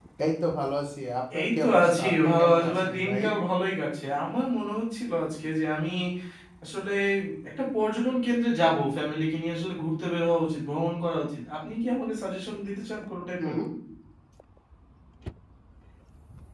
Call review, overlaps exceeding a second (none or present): present